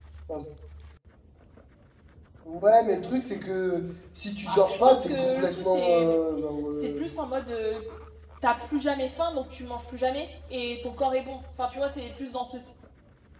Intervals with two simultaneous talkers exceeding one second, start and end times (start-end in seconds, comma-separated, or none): 4.5-6.2